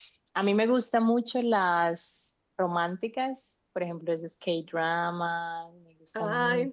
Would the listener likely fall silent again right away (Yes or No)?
No